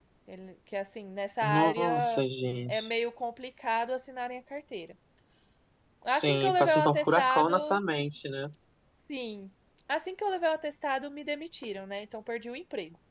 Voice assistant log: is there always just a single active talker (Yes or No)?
No